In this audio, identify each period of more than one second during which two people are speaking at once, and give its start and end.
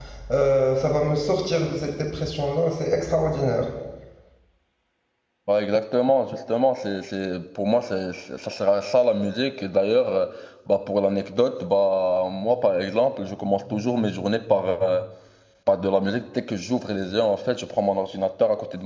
none

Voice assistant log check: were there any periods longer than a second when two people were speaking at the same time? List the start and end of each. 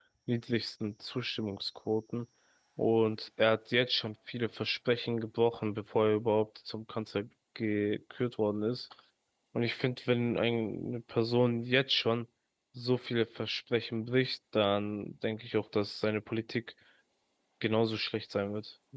none

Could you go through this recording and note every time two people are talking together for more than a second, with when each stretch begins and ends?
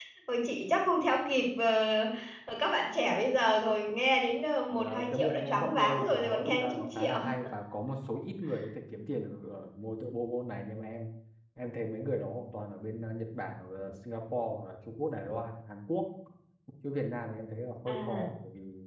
4.8-7.2

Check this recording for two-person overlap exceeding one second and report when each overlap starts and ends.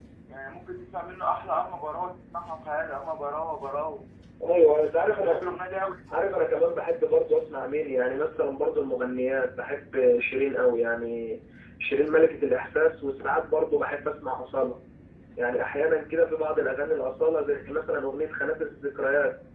none

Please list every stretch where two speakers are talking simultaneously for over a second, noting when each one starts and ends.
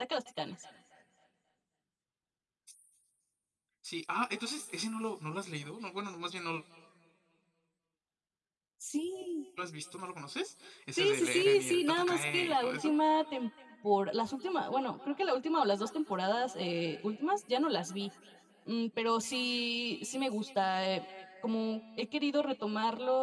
11.0-12.9

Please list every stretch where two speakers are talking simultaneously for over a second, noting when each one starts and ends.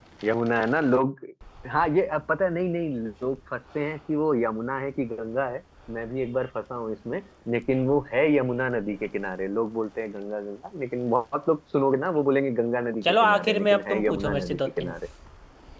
13.0-14.9

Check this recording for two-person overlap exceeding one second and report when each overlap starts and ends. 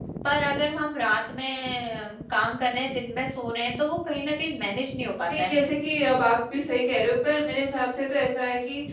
none

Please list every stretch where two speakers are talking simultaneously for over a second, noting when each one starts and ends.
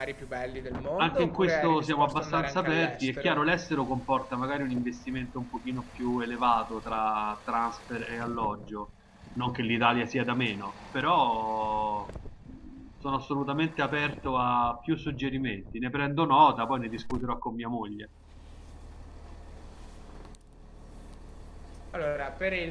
1.0-3.4

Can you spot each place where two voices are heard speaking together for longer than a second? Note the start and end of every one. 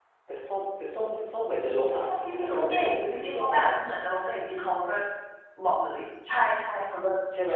1.9-3.7

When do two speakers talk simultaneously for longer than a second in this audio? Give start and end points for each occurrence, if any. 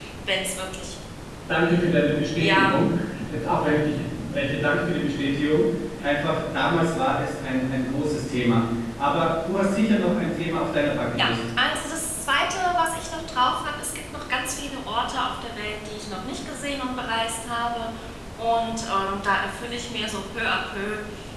none

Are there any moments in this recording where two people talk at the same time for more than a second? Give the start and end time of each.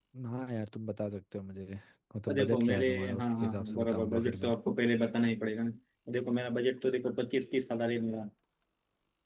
2.3-4.5

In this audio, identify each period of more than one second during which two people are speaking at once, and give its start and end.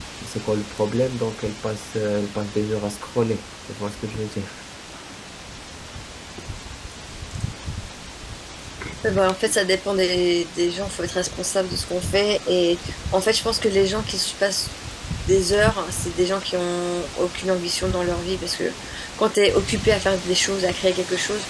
none

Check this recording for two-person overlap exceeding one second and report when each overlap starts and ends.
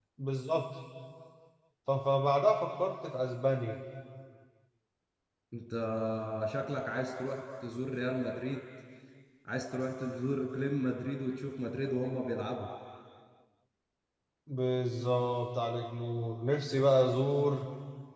none

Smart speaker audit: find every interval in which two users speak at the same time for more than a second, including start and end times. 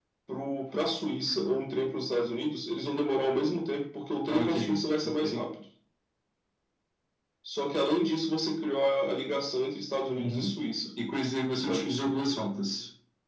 none

